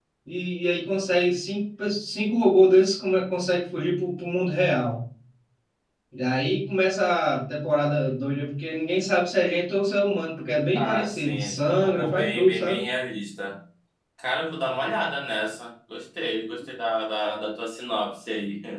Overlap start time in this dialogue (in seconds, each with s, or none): 10.8 s